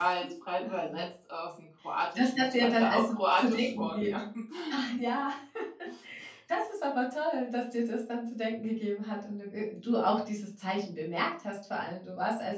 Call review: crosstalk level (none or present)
present